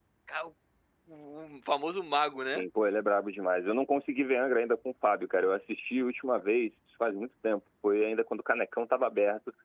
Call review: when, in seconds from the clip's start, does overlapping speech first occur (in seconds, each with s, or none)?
none